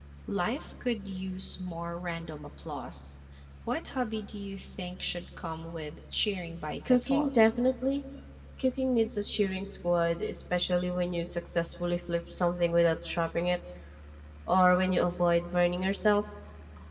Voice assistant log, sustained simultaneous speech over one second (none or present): none